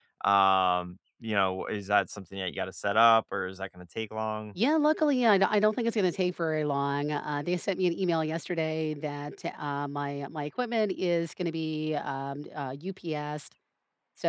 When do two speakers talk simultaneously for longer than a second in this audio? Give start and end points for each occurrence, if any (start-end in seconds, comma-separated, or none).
none